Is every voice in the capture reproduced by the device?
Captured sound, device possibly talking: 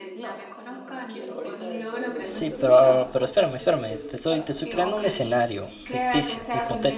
No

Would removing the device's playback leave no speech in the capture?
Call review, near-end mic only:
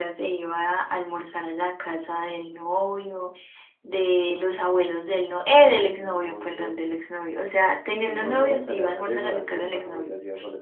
Yes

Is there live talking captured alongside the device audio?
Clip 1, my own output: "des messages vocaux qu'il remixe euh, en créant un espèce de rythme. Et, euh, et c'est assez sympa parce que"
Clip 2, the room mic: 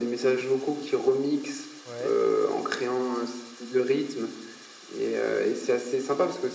Yes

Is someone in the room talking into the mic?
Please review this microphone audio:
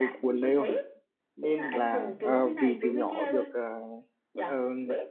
Yes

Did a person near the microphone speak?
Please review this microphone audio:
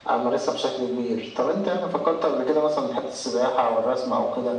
No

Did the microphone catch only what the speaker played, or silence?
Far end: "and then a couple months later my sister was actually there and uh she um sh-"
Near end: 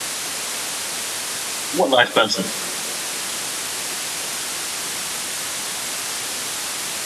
No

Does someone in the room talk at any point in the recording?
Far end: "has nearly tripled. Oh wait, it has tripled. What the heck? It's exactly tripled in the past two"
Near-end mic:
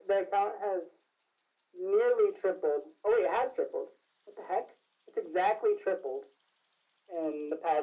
No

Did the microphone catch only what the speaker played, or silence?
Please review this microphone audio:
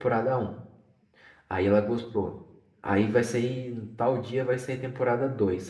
No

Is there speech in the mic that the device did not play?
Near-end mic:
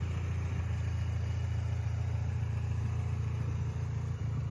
No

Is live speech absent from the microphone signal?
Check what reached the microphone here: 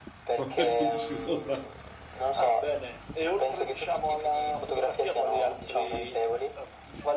No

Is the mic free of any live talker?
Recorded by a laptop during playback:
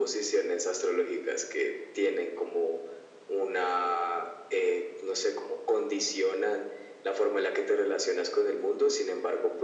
Yes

